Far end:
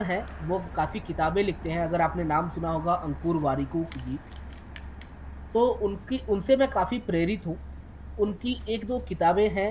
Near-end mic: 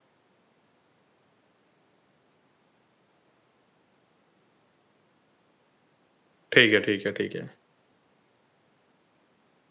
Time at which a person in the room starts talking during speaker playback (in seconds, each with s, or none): 6.5 s